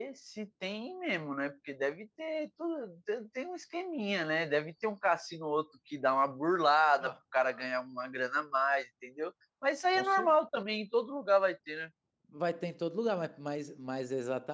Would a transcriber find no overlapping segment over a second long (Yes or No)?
Yes